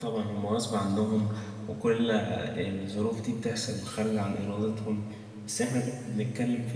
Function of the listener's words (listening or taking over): listening